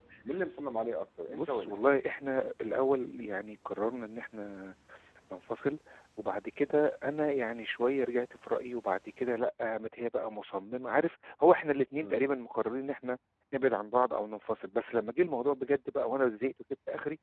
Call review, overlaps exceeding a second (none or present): none